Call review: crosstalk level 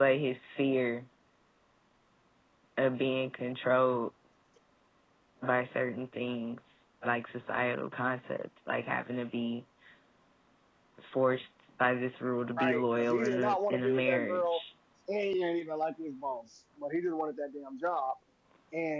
present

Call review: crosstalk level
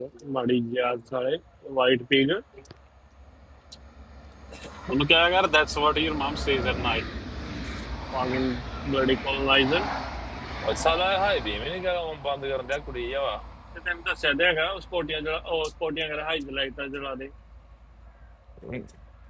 none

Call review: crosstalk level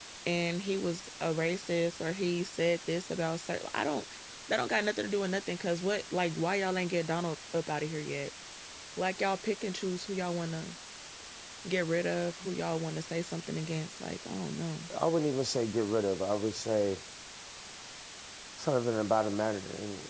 none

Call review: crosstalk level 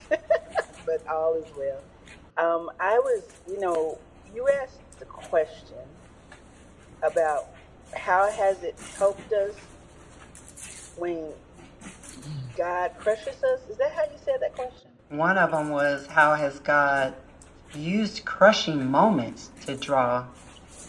none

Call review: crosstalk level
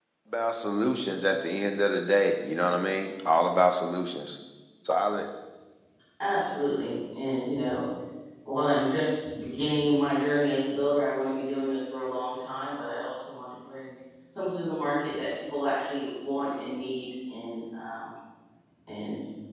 none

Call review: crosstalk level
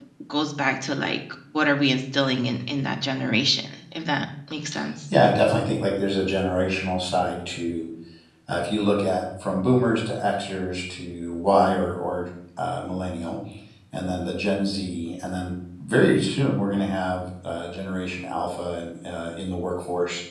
none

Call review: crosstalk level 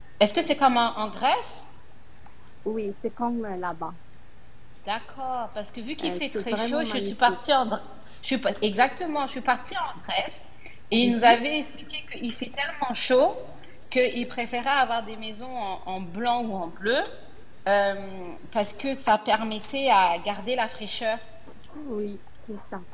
present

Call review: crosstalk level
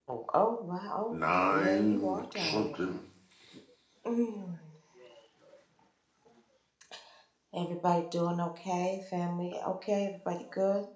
present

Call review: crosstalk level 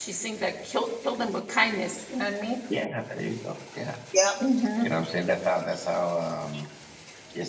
none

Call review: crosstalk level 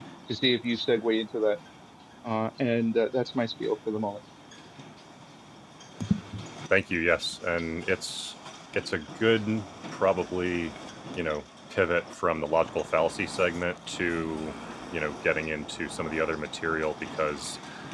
none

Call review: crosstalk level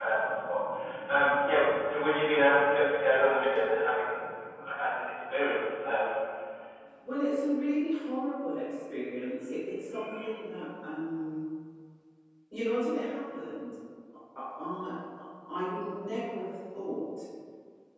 none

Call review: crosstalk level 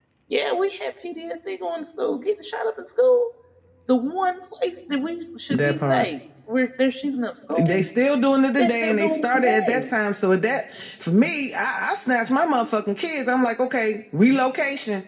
present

